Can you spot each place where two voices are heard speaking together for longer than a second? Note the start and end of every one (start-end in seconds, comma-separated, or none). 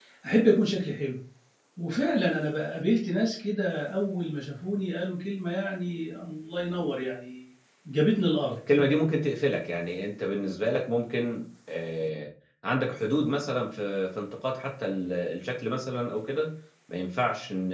none